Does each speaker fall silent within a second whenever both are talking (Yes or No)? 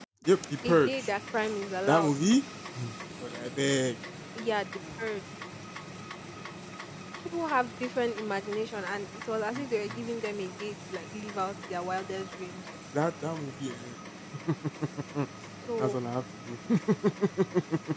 Yes